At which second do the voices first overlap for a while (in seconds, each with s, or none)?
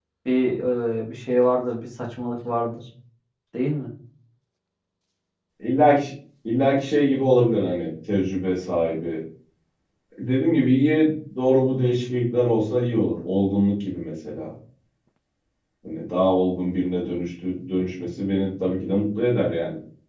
none